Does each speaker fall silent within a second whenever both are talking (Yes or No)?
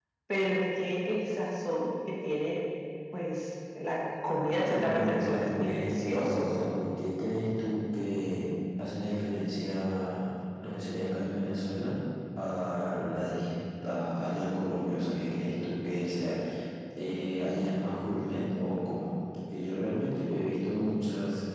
No